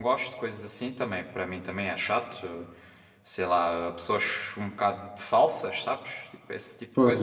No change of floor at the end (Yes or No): No